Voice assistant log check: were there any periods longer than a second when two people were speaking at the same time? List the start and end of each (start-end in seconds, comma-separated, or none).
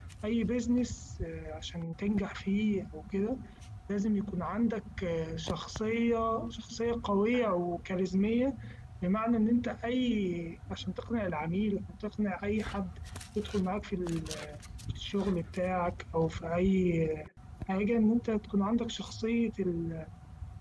none